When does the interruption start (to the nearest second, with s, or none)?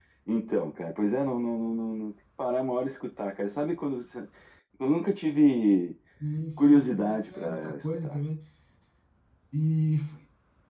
7 s